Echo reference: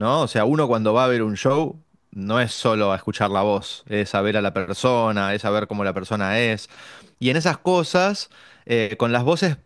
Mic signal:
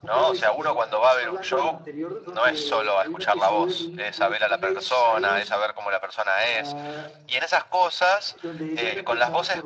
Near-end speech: present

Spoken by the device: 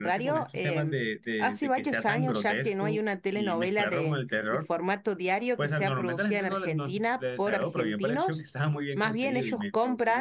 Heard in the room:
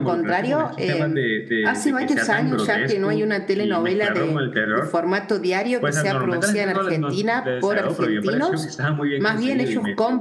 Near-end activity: none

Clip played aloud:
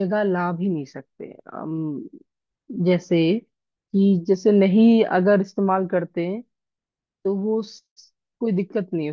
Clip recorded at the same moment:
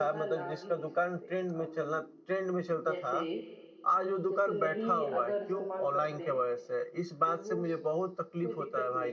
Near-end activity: present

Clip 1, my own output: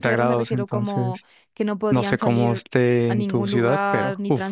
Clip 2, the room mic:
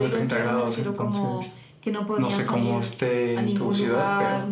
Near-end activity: none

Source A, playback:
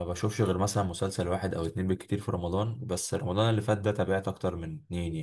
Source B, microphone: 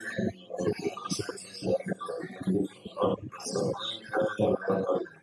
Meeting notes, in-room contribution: none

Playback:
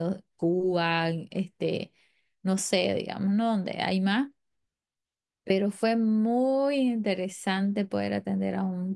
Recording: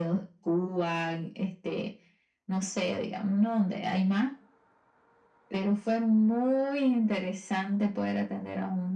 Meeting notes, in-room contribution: none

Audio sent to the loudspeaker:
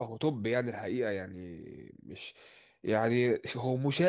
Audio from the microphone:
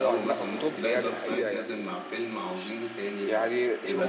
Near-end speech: present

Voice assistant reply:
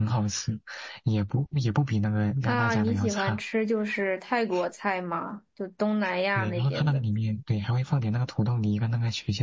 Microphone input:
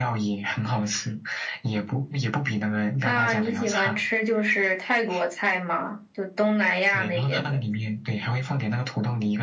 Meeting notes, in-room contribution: none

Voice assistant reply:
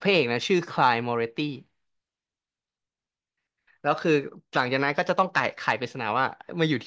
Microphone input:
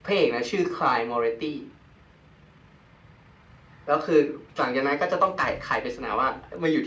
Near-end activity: none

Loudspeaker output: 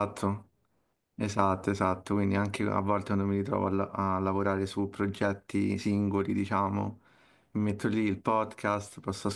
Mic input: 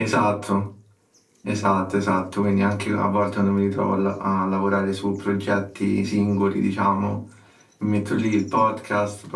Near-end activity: none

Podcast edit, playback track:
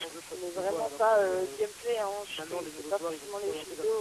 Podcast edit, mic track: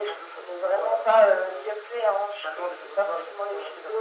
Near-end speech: none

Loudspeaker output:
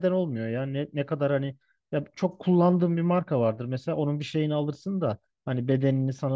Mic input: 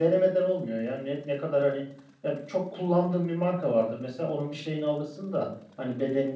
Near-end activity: none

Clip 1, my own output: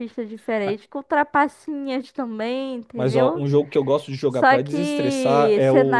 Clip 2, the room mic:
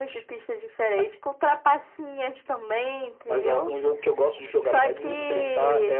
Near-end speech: present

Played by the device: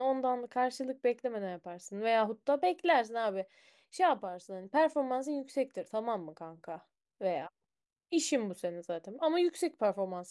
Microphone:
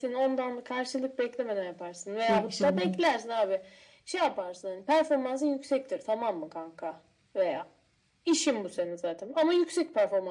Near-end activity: present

